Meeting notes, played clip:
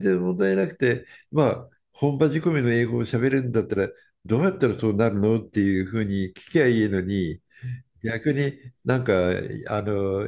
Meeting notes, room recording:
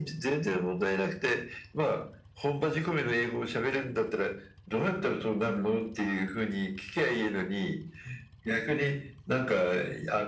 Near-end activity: none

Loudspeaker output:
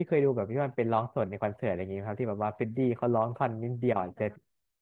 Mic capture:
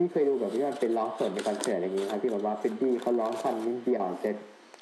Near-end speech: none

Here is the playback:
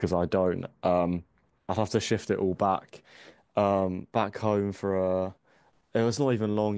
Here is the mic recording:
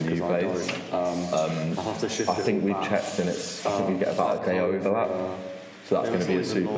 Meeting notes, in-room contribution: present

